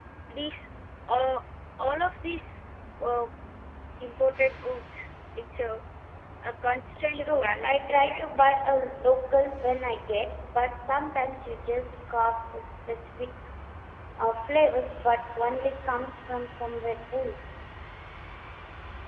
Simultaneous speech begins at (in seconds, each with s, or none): 7.1 s